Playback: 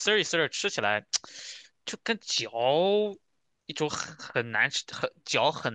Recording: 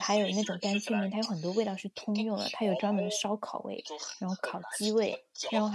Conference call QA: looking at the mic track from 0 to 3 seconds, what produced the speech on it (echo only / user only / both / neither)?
both